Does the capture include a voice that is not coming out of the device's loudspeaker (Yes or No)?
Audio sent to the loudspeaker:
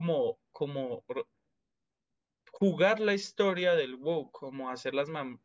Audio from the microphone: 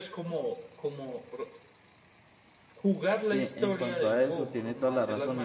Yes